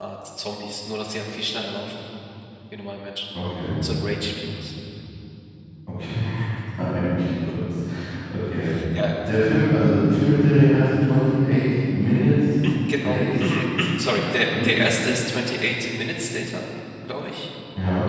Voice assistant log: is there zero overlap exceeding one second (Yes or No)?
Yes